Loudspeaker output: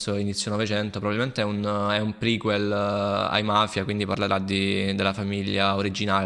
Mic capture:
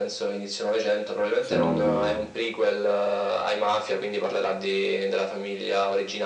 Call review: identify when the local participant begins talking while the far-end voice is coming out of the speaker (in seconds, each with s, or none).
1.4 s